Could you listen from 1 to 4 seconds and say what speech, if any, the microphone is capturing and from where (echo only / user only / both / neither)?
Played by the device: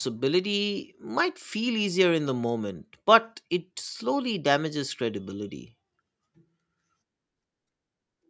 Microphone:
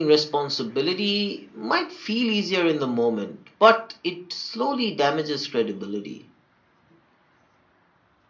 echo only